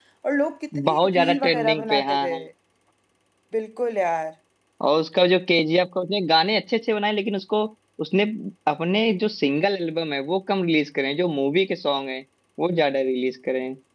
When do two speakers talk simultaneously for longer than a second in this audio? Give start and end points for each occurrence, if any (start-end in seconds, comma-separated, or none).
0.9-2.4